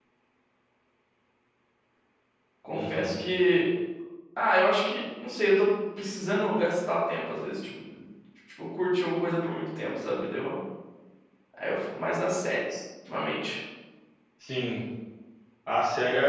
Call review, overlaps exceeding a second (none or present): none